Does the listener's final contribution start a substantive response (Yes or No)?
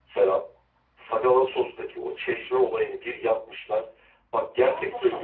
No